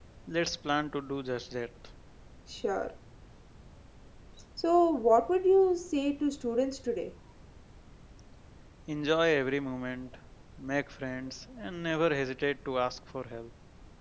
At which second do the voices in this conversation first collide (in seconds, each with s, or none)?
none